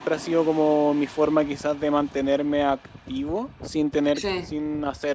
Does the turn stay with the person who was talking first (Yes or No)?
Yes